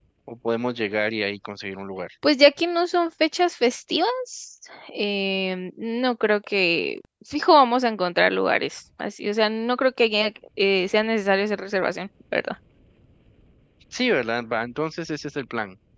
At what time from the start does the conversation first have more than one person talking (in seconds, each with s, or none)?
none